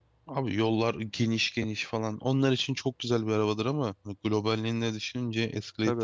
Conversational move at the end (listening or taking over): taking over